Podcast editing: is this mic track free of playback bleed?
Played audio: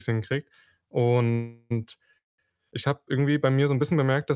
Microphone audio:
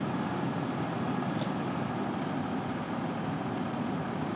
Yes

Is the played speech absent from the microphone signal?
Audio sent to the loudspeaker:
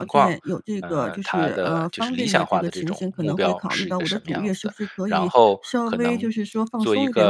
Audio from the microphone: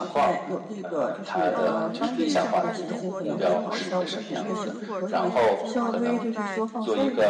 No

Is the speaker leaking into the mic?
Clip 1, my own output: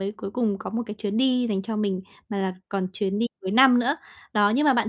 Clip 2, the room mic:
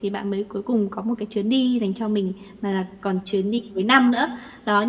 Yes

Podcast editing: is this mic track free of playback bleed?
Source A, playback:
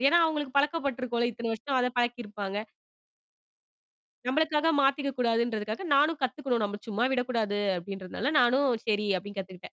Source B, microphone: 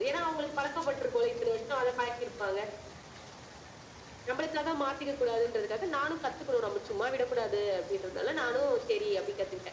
No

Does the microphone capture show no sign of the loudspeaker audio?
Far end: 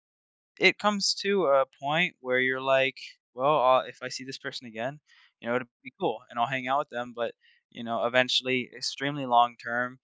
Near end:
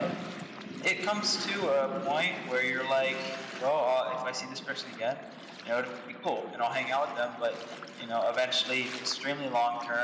No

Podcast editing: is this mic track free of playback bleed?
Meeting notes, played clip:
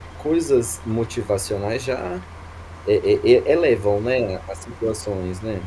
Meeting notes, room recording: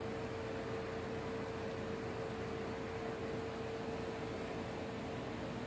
Yes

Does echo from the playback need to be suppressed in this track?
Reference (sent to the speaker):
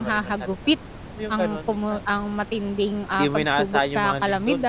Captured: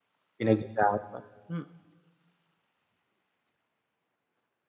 No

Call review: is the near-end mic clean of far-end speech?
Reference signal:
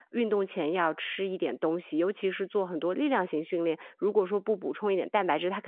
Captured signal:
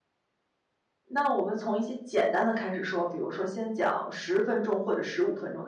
Yes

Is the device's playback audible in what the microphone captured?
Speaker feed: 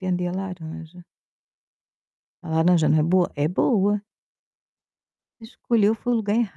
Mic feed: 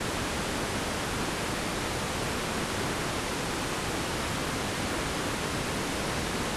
No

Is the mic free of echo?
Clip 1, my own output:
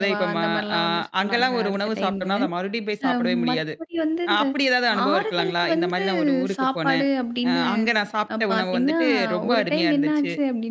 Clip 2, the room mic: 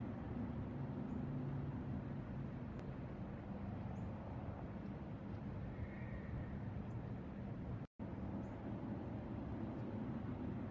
Yes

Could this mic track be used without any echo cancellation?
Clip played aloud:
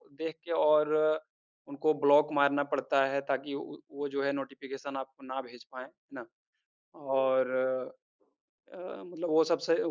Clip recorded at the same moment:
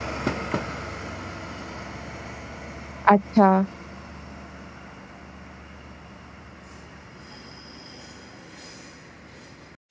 Yes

